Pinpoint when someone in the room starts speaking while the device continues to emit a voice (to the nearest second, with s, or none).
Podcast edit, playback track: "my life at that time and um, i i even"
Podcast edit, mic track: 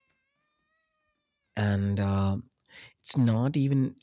2 s